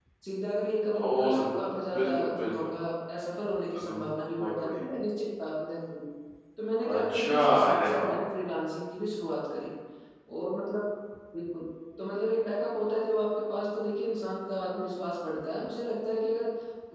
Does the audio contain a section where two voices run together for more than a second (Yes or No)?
Yes